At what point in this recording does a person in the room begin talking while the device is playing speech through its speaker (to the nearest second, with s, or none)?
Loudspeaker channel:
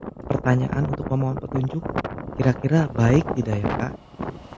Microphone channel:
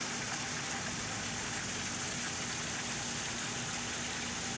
none